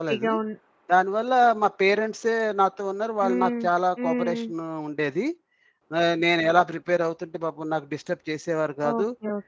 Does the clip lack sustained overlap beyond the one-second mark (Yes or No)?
Yes